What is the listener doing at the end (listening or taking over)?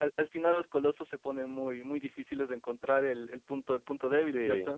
taking over